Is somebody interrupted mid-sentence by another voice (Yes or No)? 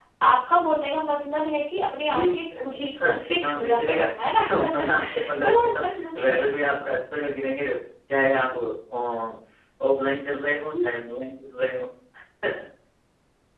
Yes